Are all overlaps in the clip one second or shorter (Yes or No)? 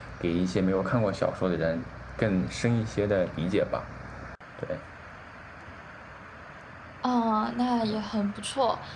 Yes